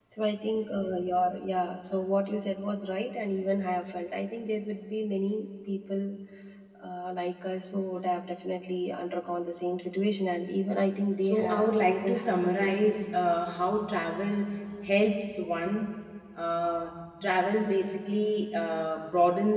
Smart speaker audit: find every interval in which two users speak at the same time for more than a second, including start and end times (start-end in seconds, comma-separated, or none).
11.2-13.2